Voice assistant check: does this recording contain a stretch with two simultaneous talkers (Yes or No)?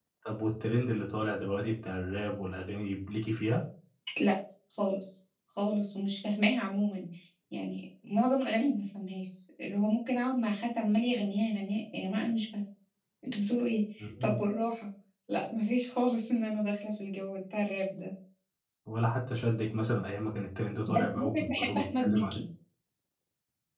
Yes